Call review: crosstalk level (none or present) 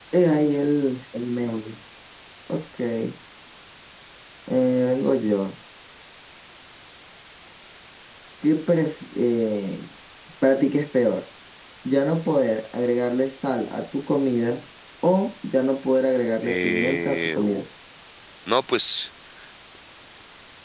present